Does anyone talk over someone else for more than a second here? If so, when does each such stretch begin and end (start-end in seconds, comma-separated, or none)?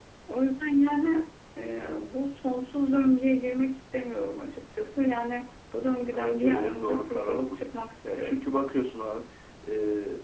6.0-7.6